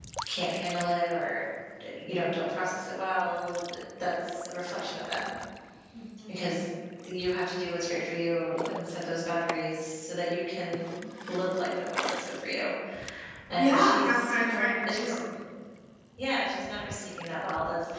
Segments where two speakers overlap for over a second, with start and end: 13.6-15.1

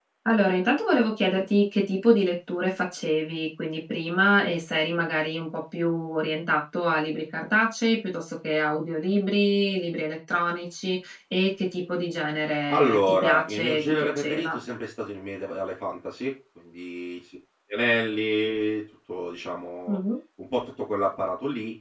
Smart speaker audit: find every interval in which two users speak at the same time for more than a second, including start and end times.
12.7-14.6

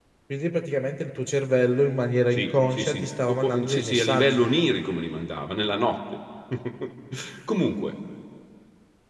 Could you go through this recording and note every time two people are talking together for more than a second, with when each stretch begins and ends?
2.3-4.5

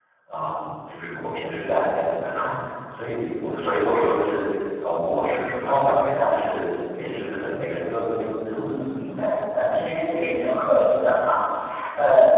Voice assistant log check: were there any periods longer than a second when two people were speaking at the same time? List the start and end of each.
none

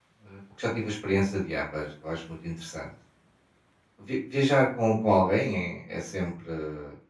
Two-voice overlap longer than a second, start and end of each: none

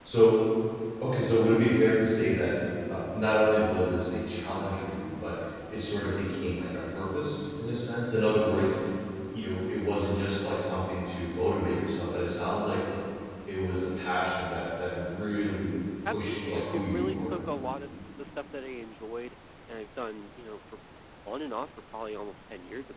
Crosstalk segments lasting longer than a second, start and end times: 16.0-17.4

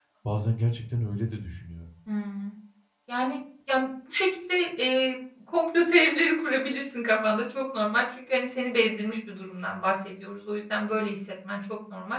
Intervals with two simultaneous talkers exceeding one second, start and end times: none

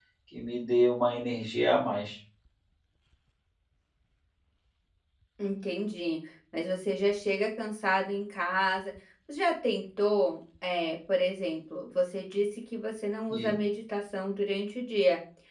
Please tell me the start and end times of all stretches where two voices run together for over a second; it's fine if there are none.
none

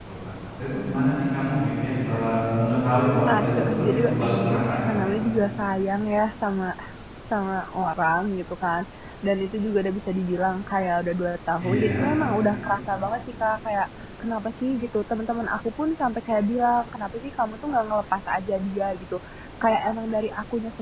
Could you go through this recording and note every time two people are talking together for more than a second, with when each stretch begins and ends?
3.3-4.9

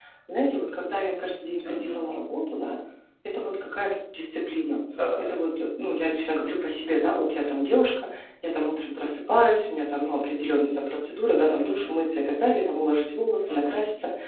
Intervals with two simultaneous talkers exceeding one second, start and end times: none

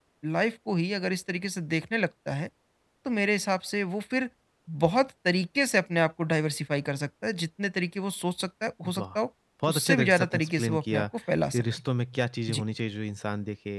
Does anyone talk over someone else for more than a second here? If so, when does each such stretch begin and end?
9.7-11.0

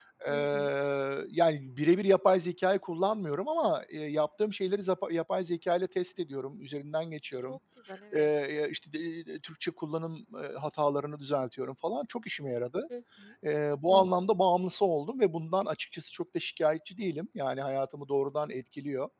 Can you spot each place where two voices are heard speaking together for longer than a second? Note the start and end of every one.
none

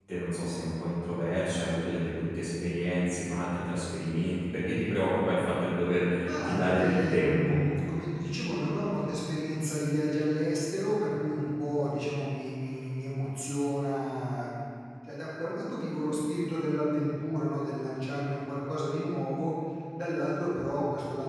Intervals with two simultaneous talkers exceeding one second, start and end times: 6.2-7.6

